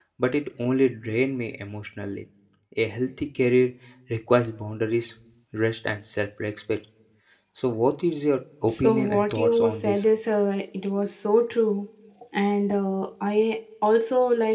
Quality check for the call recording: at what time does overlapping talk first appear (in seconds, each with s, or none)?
8.7 s